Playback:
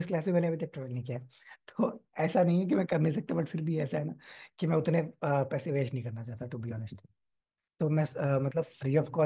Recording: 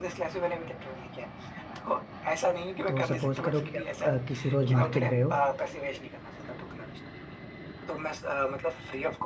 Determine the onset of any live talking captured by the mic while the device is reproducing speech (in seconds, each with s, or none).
2.9 s